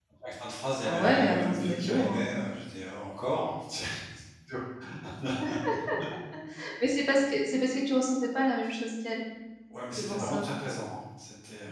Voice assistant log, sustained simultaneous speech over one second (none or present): present